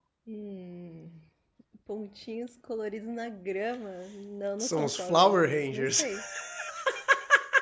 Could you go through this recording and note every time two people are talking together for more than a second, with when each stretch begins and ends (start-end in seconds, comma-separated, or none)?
4.6-6.1